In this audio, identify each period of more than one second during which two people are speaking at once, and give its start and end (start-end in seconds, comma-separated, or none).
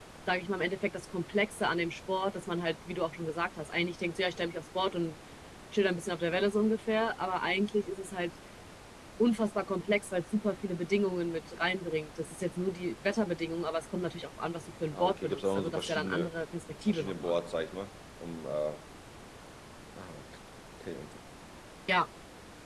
14.9-16.3